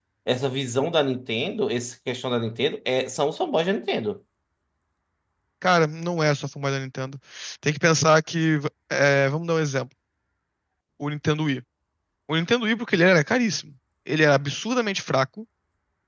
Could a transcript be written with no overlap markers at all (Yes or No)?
Yes